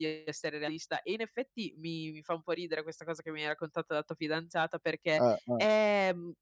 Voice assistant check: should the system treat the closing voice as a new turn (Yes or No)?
No